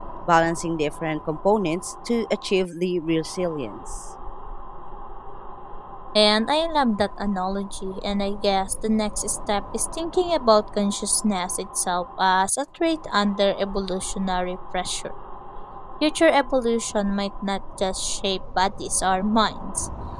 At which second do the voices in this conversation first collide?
none

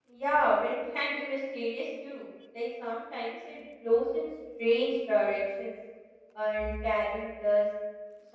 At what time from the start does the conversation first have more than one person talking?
none

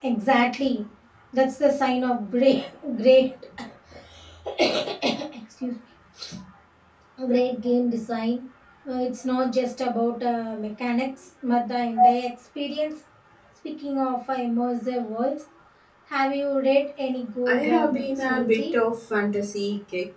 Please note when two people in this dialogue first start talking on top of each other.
17 s

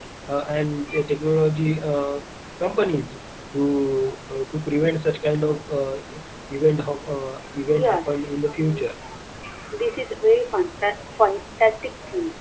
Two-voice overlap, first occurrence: 8 s

